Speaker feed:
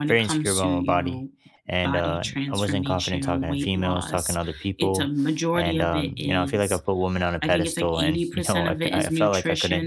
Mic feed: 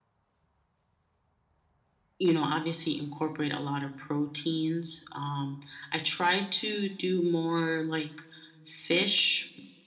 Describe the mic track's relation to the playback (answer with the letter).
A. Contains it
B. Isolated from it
B